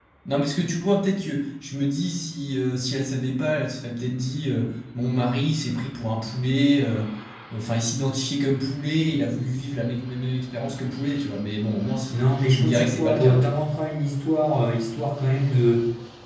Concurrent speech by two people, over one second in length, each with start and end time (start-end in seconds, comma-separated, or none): 12.1-13.6